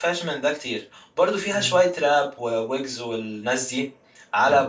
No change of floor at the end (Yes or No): Yes